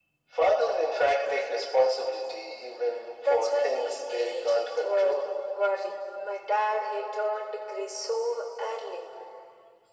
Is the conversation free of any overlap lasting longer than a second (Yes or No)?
No